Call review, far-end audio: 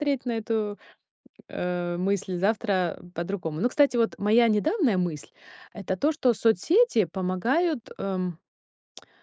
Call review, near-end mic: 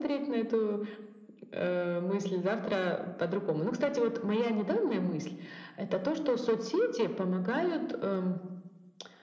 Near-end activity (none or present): none